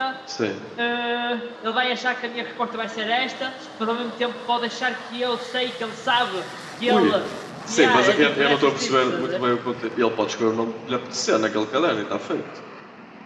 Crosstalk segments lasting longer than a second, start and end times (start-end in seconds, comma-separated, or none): 7.7-9.4